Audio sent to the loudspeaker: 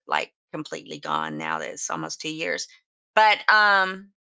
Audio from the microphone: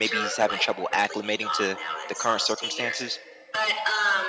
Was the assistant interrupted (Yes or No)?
Yes